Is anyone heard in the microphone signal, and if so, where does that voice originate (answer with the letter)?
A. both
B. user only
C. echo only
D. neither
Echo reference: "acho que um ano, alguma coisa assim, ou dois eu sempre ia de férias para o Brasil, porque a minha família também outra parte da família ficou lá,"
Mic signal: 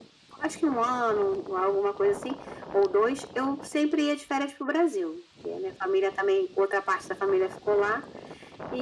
C